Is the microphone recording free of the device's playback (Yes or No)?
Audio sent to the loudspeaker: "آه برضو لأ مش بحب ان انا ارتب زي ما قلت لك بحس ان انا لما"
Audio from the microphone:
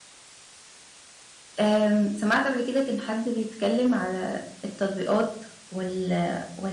Yes